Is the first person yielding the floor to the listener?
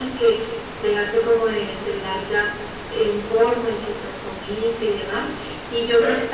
No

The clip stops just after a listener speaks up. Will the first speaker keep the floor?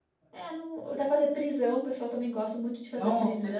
No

